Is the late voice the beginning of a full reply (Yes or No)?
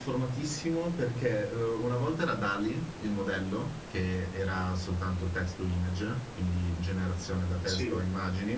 No